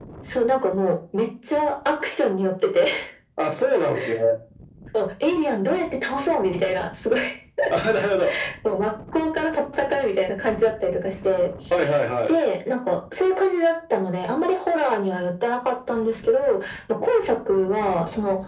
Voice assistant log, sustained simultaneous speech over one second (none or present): none